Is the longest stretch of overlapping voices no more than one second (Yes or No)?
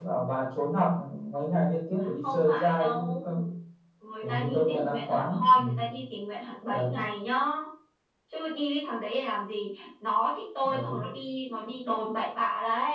No